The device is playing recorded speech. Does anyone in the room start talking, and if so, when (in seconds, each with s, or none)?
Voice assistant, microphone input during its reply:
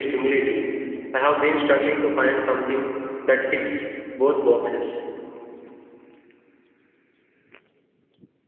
none